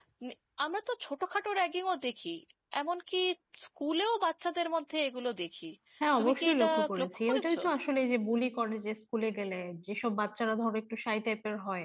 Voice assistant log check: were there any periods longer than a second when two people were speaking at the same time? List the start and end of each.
6.2-7.6

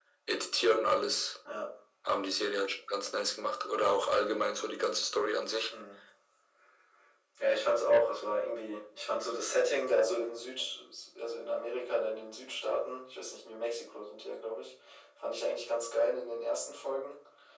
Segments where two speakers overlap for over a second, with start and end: none

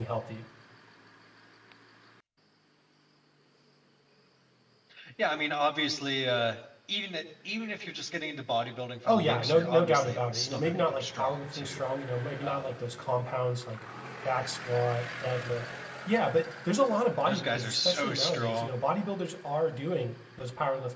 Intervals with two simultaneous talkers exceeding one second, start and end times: 9.0-11.8, 17.2-18.7

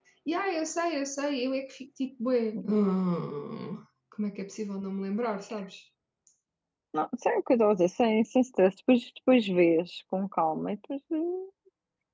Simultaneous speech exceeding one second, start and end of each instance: none

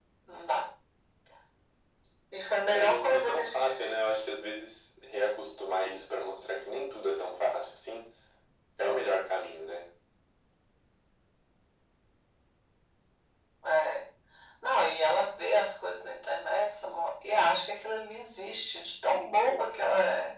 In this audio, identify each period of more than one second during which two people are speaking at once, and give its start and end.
2.7-4.0

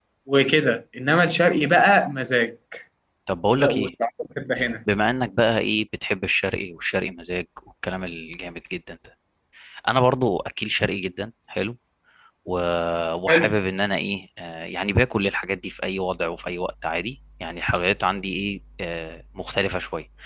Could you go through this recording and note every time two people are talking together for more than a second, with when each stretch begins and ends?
none

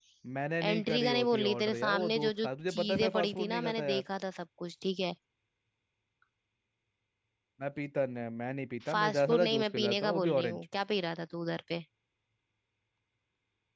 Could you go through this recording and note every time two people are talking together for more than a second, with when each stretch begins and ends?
0.7-4.0, 8.9-10.6

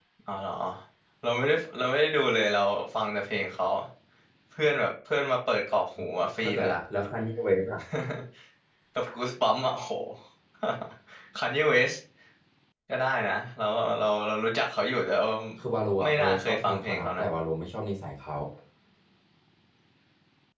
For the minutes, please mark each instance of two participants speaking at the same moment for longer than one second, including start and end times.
16.0-17.3

